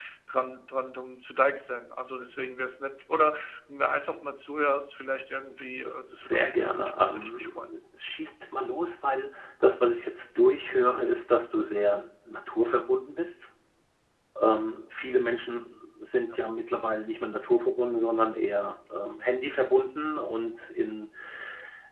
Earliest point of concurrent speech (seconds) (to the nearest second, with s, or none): 5 s